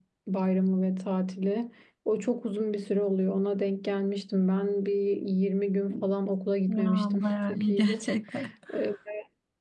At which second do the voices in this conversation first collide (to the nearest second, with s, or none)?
7 s